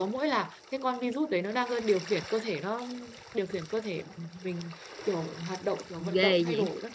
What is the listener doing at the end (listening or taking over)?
taking over